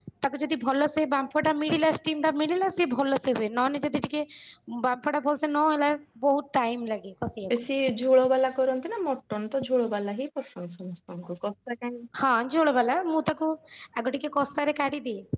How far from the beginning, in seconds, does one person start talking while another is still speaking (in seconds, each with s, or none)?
none